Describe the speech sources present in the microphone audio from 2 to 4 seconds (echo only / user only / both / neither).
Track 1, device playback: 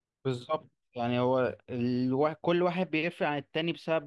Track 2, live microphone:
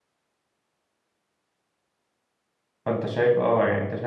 user only